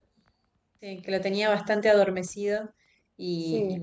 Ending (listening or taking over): listening